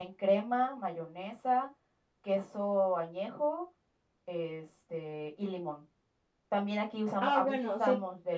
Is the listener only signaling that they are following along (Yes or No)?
No